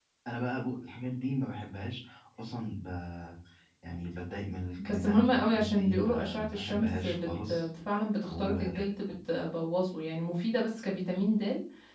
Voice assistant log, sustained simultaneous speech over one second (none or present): present